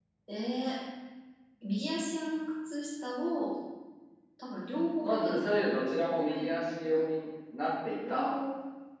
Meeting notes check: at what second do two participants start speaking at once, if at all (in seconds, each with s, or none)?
5.0 s